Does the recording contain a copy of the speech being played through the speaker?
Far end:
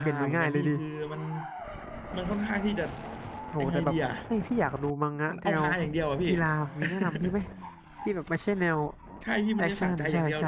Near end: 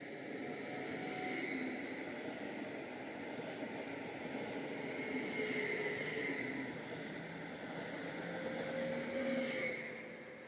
No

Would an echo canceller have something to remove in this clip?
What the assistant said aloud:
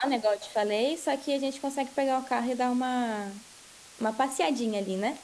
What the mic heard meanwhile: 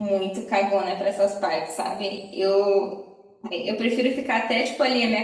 No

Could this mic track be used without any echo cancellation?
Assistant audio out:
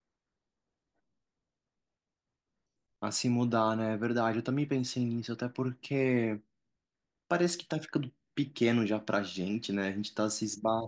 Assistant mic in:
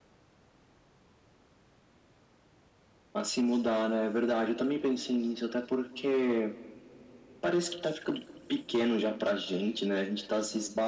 No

